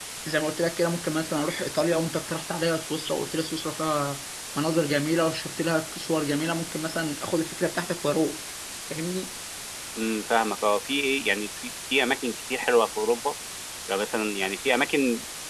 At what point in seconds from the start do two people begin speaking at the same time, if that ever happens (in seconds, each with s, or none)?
none